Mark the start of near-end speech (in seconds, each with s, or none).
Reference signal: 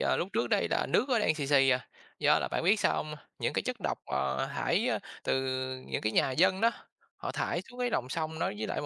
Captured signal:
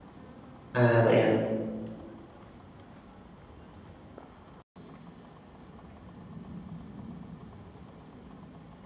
0.7 s